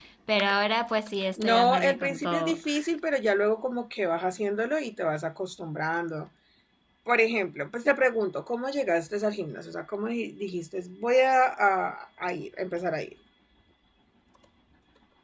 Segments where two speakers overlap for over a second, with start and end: 1.4-2.6

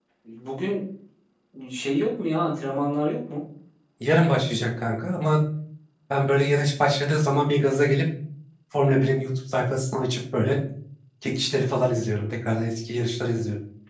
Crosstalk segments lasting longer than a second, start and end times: none

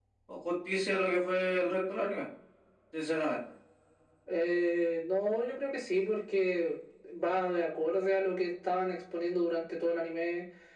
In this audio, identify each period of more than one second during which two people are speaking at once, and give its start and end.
none

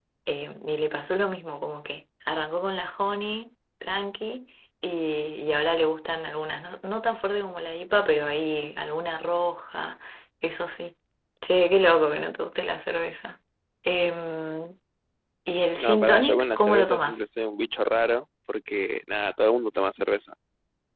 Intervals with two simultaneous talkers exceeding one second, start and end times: 15.8-17.2

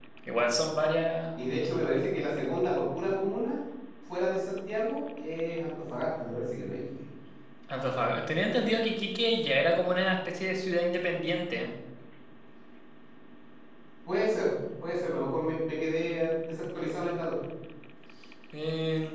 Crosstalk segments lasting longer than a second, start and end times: none

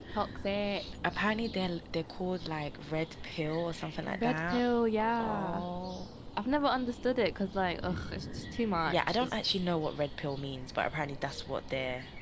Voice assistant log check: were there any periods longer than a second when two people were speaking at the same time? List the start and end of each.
none

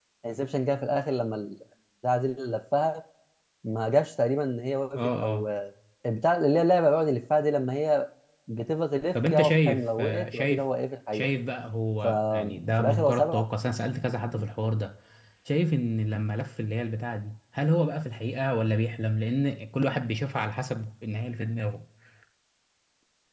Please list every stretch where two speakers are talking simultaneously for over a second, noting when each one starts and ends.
9.3-10.6, 12.0-13.4

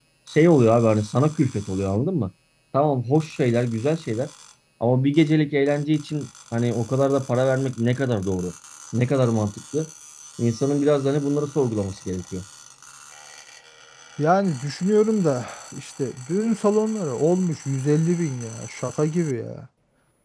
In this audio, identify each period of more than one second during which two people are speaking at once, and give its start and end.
none

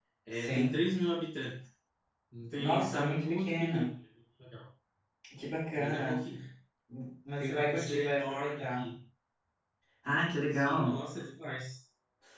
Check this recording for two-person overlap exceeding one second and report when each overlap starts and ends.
2.6-3.8, 7.4-8.9

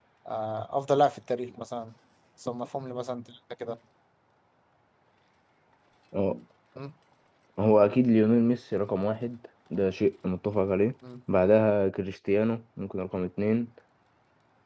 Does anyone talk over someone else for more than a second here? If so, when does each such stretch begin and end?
none

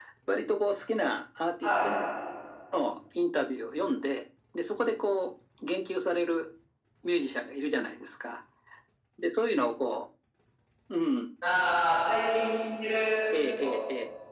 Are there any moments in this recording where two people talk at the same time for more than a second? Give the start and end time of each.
none

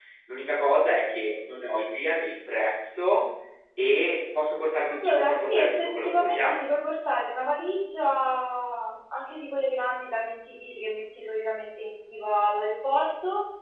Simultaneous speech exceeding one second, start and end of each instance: 4.9-6.7

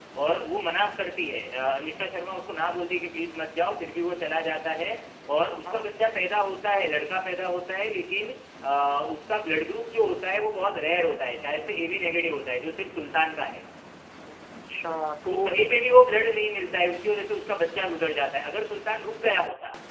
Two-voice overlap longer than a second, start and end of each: none

